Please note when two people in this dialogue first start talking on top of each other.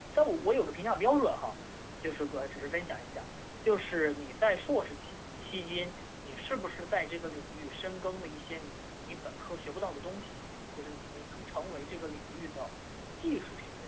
none

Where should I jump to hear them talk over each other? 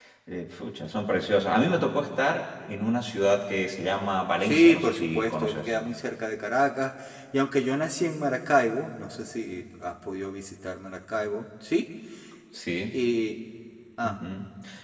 4.4 s

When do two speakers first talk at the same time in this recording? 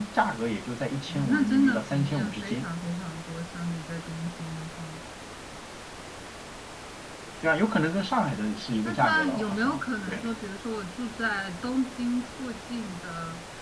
1.1 s

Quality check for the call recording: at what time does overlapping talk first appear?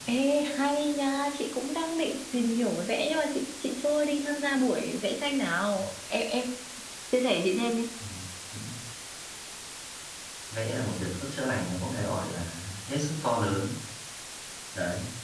none

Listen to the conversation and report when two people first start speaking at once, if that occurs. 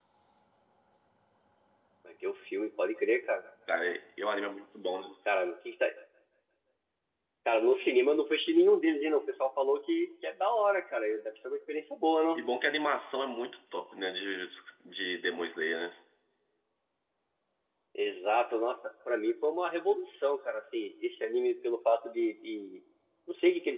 none

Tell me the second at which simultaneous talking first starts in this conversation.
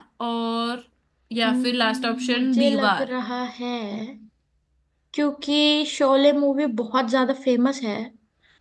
1.4 s

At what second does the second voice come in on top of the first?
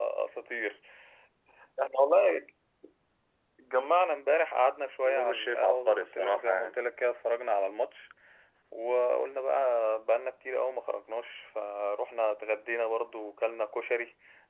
5.0 s

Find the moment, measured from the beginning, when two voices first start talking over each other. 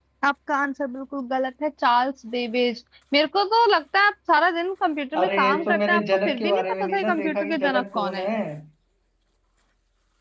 5.2 s

